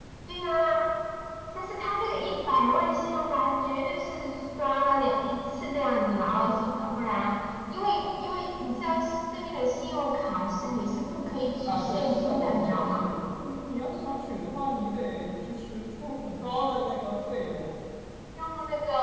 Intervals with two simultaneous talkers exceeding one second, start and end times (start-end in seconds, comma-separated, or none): 11.7-13.1